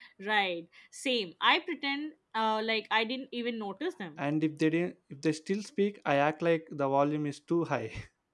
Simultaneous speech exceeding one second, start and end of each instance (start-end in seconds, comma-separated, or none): none